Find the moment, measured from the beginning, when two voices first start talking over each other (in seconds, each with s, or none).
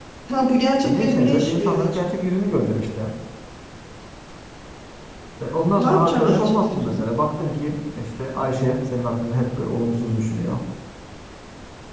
0.8 s